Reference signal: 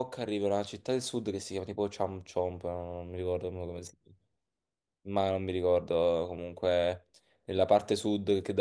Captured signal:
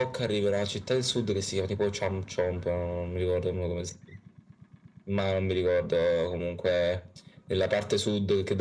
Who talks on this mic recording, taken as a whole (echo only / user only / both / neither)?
echo only